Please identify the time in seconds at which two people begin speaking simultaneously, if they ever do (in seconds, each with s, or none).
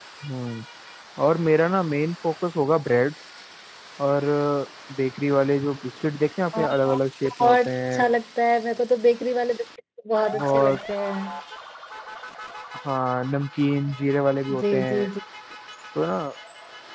6.5 s